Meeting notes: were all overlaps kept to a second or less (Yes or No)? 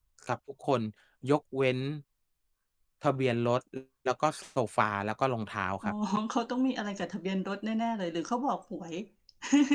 Yes